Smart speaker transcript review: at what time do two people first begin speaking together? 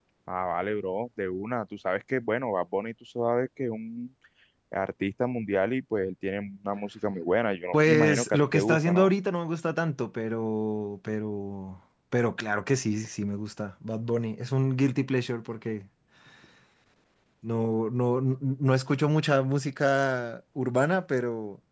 8 s

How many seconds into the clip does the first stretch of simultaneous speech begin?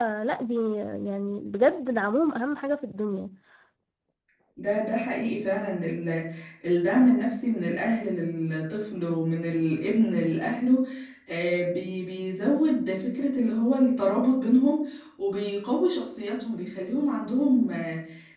none

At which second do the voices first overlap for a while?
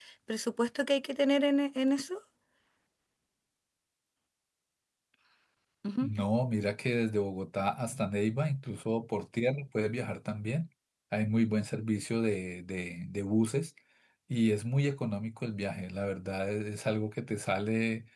none

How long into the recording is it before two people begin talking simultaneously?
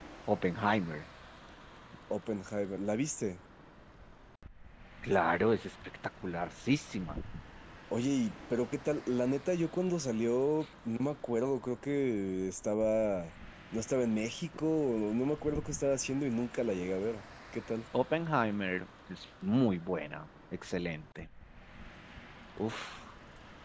none

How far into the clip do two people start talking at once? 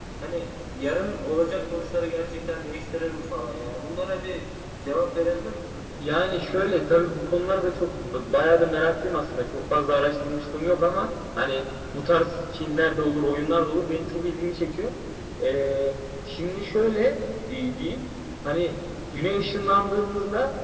none

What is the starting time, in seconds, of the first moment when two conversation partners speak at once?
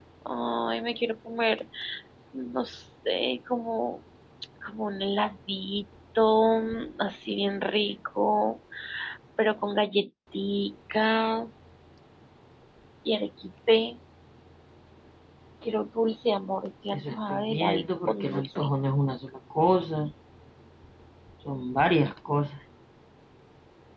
17 s

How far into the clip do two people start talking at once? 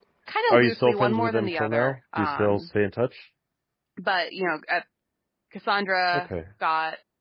1 s

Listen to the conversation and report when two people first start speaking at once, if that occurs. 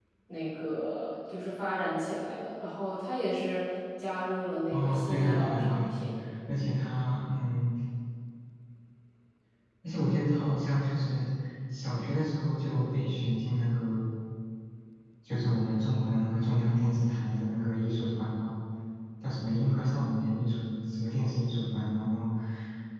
5 s

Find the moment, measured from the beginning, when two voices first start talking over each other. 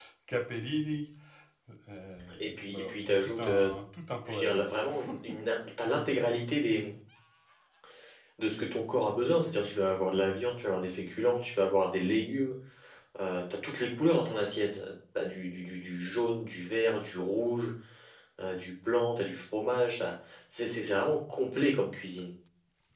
2 s

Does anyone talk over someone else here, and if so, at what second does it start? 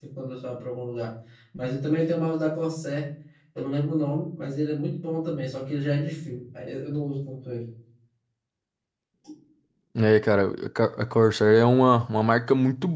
none

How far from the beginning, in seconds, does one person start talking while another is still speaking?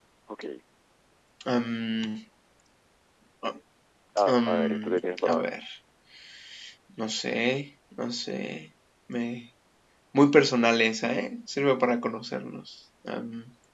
4 s

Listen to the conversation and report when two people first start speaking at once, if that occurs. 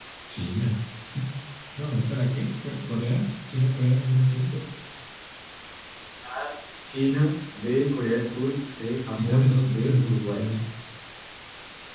9 s

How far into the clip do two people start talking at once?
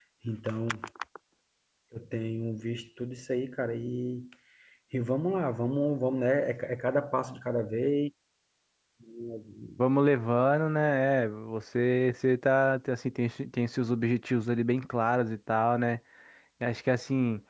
none

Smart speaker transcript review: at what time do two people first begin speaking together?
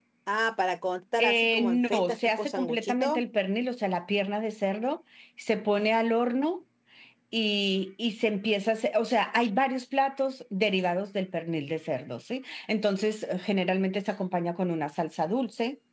1 s

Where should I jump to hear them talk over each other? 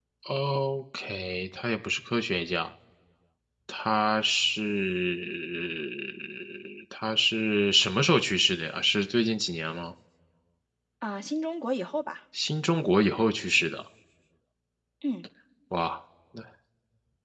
none

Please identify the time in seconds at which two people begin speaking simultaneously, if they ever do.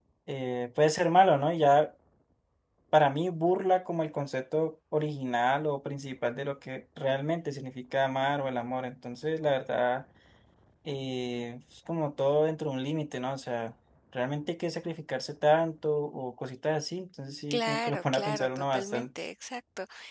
18 s

